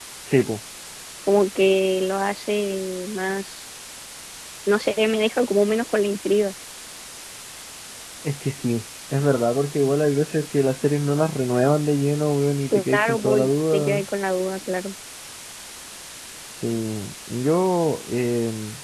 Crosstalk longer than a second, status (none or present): present